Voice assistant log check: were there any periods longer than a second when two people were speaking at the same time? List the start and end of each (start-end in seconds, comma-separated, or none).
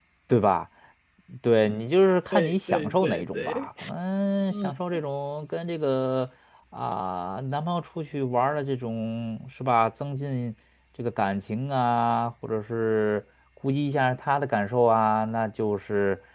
2.3-3.7